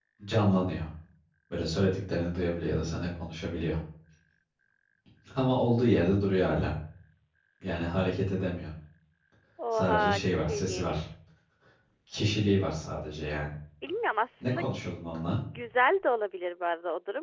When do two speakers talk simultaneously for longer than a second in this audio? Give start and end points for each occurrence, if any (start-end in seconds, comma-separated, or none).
9.7-11.0